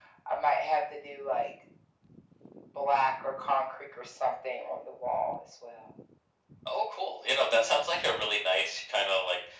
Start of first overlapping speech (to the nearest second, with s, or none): none